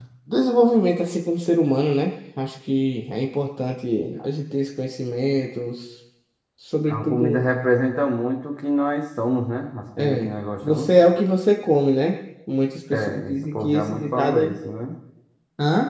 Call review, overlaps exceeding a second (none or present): present